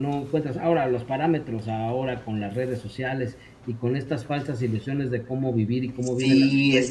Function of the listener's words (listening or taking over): taking over